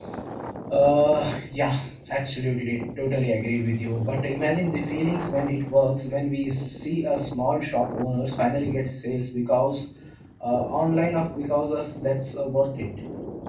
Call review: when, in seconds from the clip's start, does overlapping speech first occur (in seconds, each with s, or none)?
none